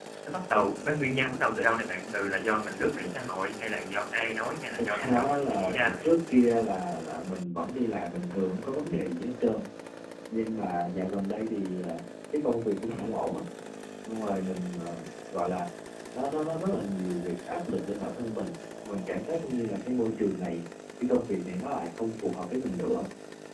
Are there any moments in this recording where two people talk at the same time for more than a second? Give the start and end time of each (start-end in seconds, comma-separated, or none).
4.8-6.1